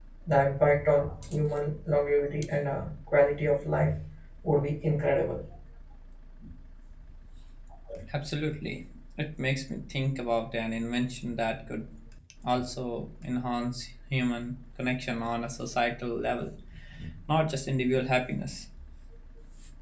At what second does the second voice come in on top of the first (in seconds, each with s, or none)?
none